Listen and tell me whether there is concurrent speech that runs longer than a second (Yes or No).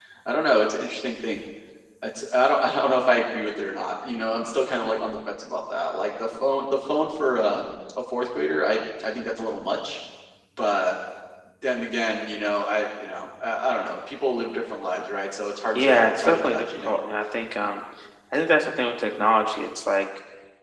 Yes